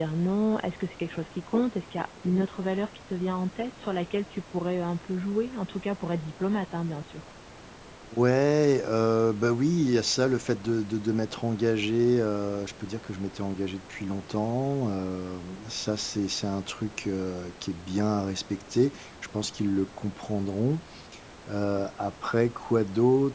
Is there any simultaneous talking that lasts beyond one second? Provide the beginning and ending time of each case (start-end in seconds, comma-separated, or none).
none